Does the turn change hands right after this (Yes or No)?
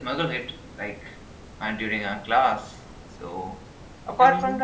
No